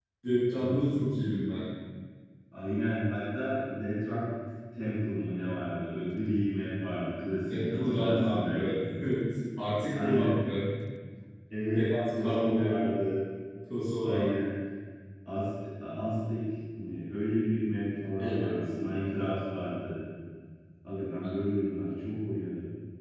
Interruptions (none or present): present